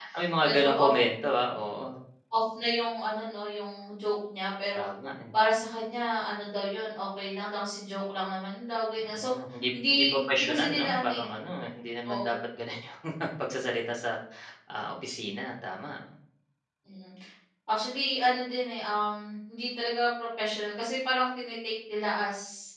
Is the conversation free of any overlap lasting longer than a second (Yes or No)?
No